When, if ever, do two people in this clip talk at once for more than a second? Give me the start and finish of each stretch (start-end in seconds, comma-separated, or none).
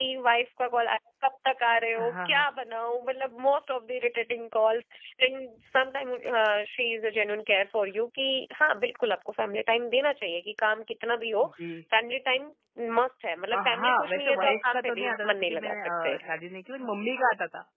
13.5-16.2